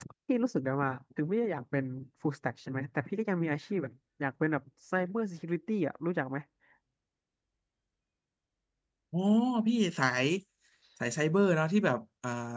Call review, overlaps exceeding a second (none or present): none